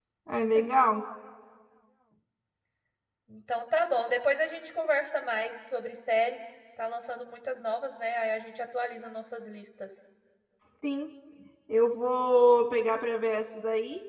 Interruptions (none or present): none